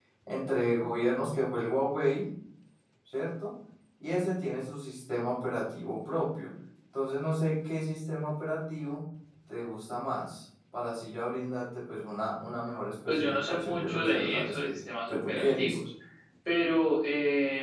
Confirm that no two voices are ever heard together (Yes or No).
No